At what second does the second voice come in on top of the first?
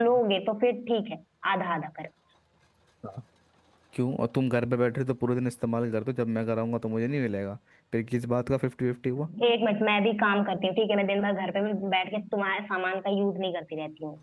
none

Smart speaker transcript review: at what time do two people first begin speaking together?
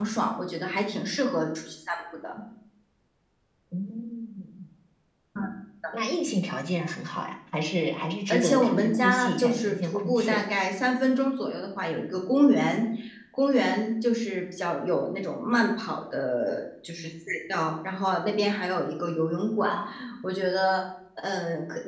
8.3 s

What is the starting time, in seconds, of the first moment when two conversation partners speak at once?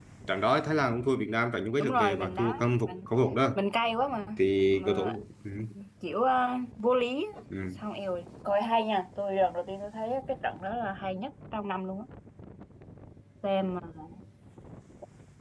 1.8 s

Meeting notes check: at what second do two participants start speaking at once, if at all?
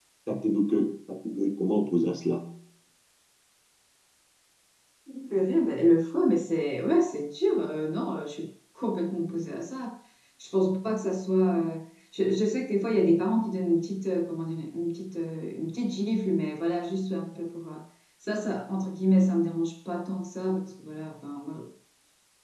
none

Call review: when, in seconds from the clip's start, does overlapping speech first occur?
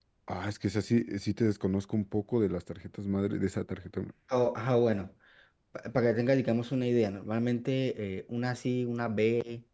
none

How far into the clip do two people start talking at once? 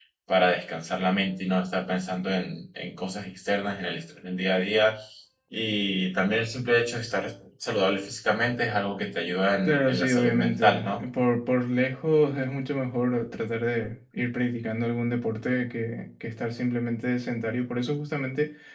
9.6 s

